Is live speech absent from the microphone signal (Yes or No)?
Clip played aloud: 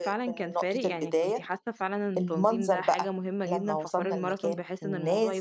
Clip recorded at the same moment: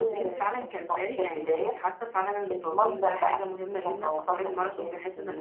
Yes